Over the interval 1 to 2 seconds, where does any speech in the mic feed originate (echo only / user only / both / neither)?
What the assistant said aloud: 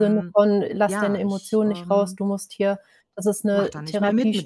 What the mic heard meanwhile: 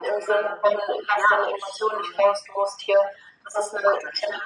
echo only